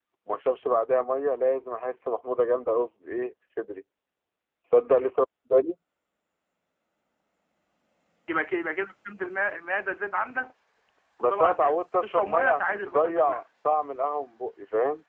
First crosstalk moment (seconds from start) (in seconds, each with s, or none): 11.2 s